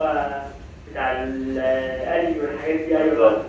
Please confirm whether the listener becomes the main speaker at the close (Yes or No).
Yes